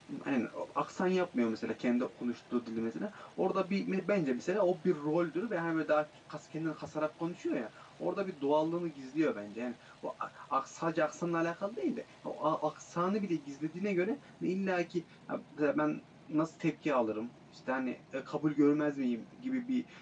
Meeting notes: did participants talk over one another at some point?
No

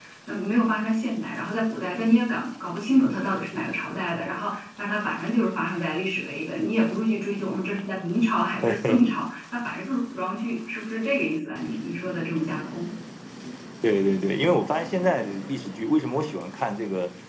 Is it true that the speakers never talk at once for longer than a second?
Yes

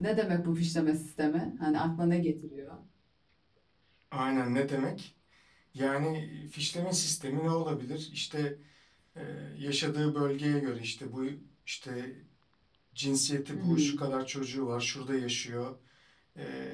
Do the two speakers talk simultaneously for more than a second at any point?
No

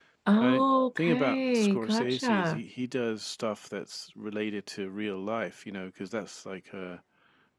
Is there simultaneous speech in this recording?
Yes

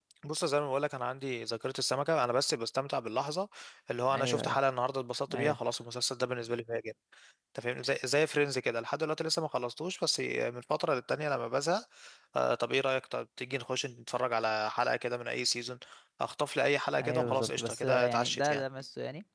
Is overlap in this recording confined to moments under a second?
No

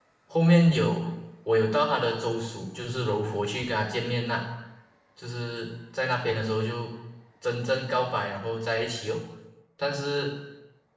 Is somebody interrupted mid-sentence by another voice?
No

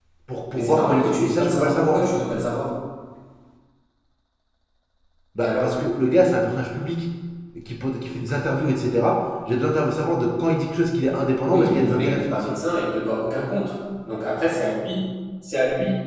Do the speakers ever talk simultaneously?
Yes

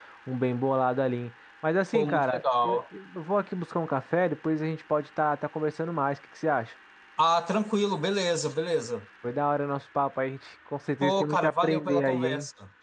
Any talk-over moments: Yes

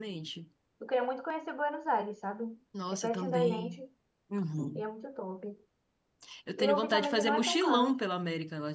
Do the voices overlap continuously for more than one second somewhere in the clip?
Yes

